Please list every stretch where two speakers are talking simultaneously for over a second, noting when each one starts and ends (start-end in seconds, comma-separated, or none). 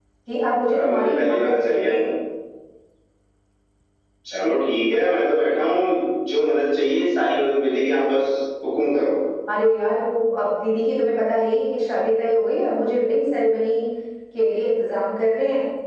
0.7-2.0